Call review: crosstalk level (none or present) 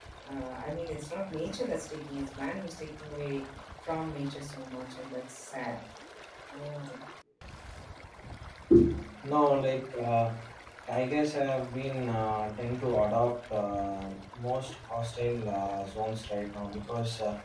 none